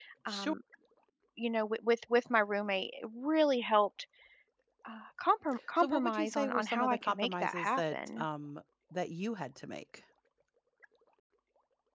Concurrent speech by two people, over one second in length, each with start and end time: 5.8-8.2

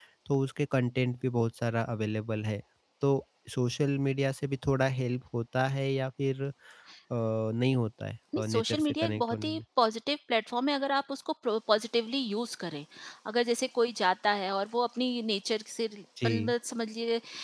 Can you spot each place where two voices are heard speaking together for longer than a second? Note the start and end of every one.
8.4-9.6

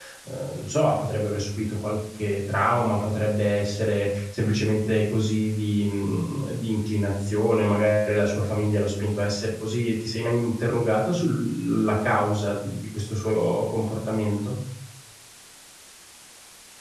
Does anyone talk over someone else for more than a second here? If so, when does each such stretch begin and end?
none

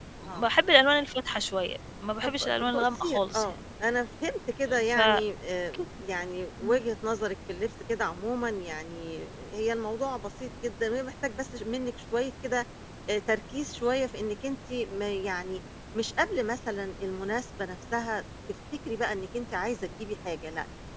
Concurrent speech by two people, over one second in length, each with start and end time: 2.2-3.6

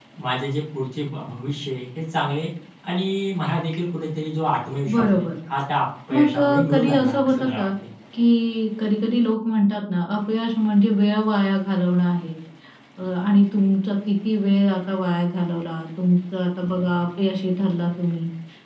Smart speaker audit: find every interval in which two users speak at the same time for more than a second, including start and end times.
6.1-7.7

